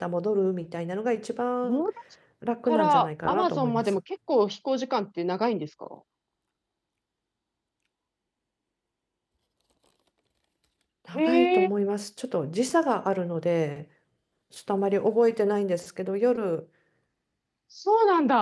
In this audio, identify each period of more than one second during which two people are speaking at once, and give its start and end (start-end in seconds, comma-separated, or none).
2.6-4.0